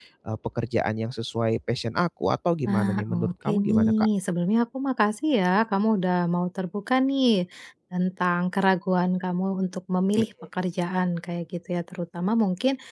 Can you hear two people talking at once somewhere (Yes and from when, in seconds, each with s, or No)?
Yes, from 2.7 s